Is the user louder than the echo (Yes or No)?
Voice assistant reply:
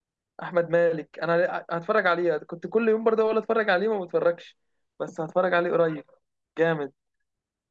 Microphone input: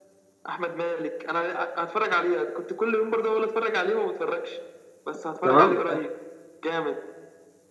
Yes